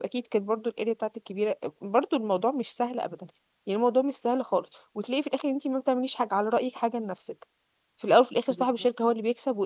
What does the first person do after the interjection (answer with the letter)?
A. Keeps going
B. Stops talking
A